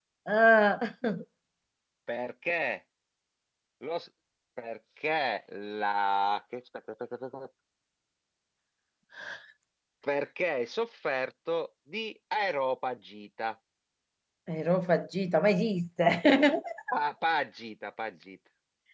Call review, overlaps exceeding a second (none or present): none